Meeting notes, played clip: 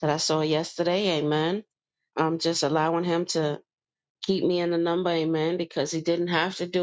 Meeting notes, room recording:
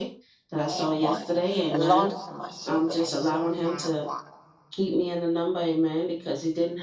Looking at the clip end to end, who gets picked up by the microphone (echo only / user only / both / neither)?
both